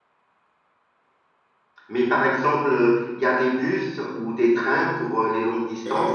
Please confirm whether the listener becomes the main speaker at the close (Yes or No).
Yes